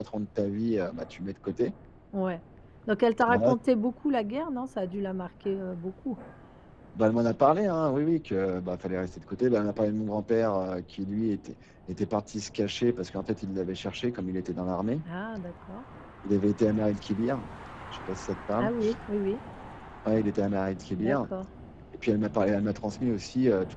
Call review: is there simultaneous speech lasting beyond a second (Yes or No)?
No